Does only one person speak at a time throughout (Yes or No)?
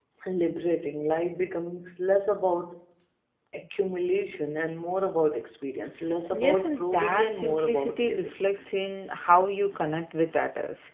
No